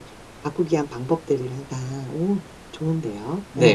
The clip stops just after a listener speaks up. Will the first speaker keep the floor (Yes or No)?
No